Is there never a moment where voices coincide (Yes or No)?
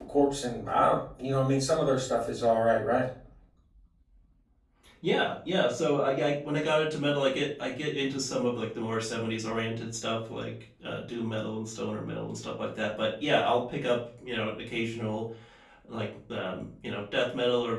Yes